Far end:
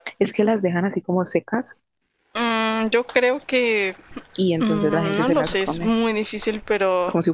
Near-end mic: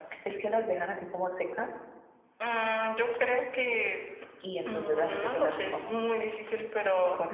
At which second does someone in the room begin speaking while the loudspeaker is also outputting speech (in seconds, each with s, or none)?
none